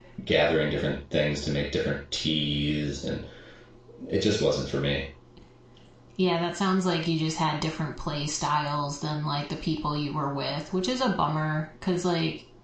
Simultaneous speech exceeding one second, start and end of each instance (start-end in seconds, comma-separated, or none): none